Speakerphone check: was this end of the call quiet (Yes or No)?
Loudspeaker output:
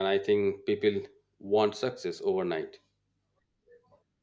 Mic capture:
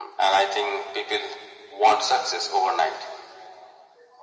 Yes